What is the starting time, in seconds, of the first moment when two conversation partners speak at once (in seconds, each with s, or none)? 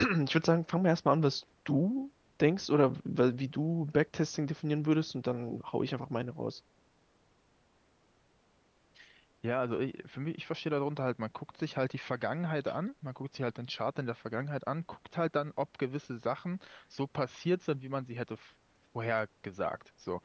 none